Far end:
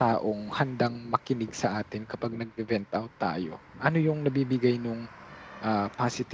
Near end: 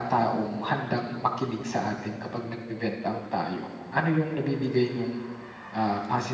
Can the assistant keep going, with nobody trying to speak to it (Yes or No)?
Yes